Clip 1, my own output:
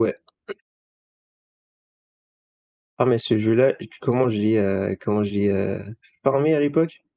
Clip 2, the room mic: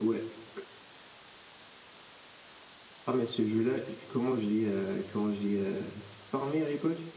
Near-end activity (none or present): none